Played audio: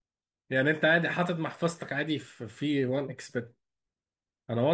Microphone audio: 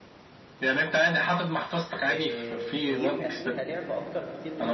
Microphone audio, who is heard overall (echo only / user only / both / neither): both